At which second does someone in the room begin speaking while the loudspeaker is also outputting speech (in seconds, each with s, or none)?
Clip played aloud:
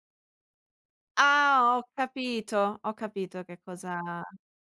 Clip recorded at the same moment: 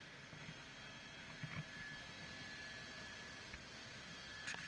none